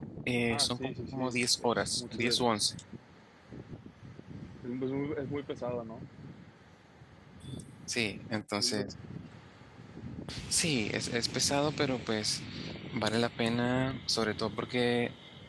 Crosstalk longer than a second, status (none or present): present